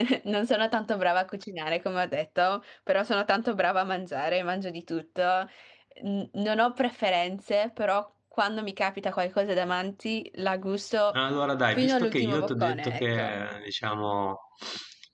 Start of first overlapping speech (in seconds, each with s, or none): 11.7 s